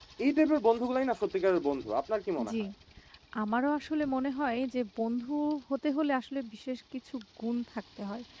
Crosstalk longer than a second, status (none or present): none